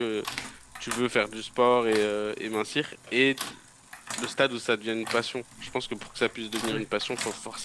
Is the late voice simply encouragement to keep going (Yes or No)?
Yes